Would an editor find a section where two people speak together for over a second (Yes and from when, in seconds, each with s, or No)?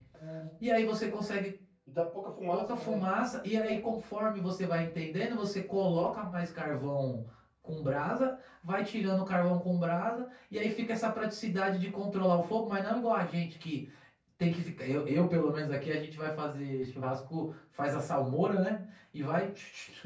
No